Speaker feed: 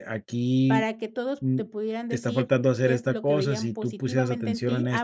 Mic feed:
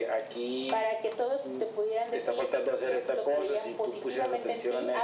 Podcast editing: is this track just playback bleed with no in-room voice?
Yes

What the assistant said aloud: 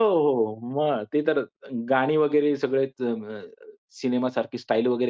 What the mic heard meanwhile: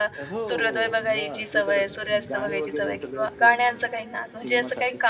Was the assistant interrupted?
Yes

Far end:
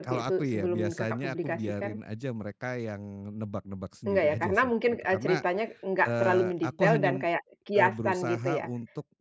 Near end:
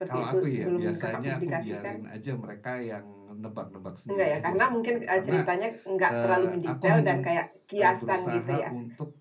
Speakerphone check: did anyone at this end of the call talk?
No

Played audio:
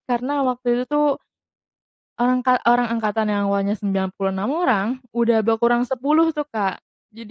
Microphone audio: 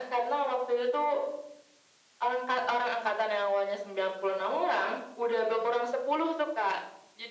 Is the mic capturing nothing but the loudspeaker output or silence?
Yes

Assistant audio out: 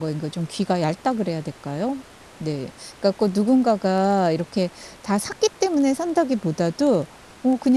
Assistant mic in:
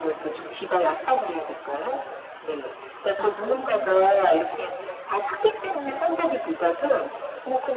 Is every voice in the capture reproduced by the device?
No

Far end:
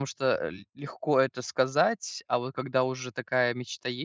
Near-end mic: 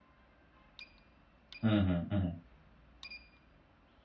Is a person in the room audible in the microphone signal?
Yes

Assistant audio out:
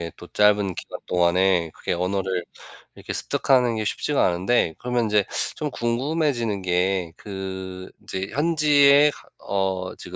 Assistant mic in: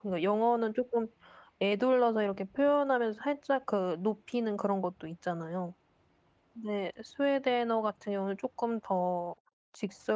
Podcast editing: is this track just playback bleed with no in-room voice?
No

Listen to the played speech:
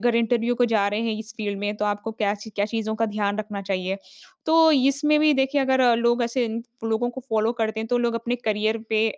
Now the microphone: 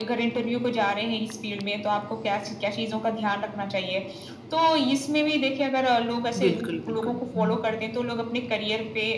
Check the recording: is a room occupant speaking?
Yes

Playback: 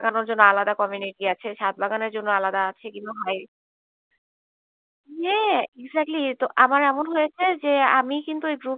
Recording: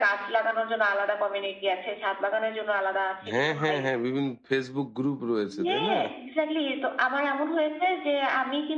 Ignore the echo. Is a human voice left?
Yes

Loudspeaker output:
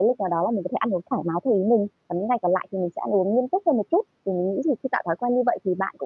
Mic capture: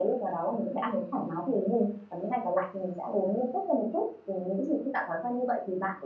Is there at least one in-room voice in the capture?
No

